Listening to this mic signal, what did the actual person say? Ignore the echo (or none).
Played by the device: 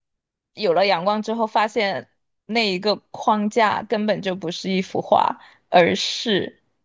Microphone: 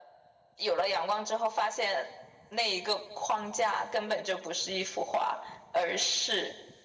none